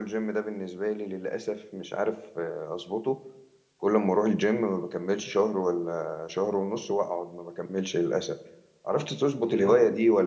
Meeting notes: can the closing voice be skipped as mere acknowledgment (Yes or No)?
Yes